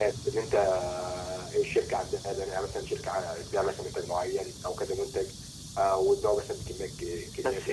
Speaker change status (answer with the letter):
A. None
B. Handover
B